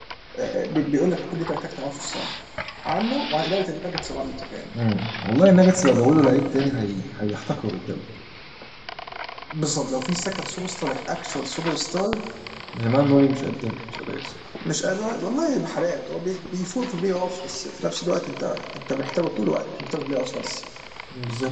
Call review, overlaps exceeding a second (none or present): none